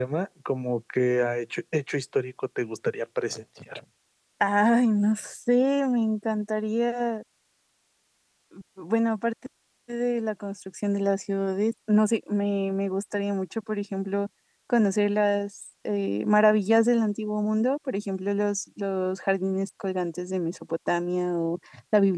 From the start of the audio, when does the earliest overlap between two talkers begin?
none

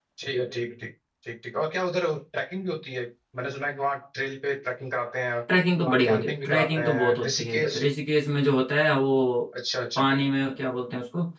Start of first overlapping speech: 5.8 s

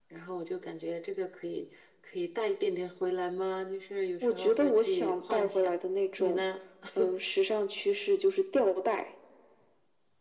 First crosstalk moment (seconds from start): 4.2 s

